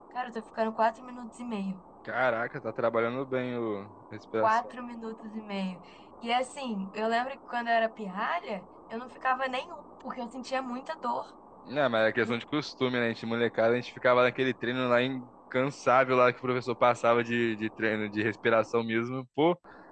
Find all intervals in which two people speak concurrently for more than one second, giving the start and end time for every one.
none

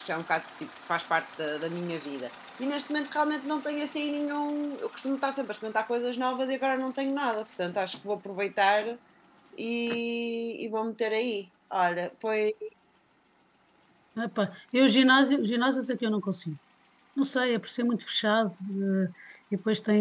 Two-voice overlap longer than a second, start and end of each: none

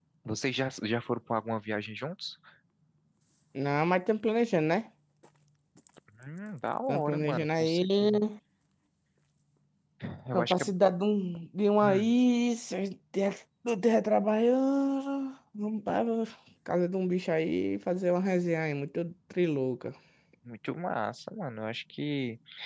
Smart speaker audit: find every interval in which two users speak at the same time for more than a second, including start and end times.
6.9-8.2

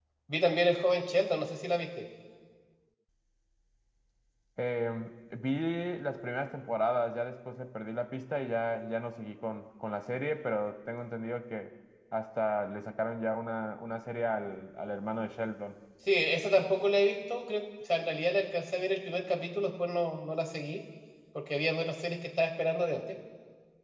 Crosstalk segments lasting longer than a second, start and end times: none

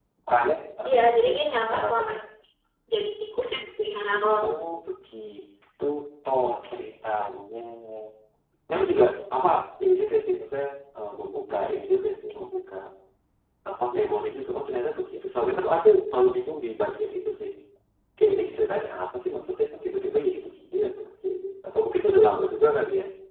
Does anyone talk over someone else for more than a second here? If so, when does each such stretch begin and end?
none

